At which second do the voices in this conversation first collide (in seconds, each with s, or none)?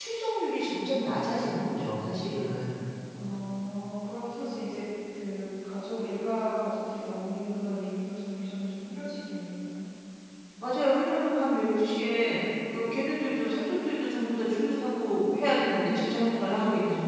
15.7 s